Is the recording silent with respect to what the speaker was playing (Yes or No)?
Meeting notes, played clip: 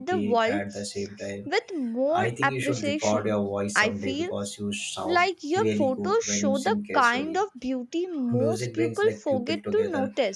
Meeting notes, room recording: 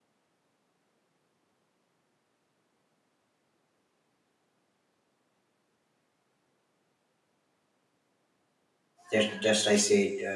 Yes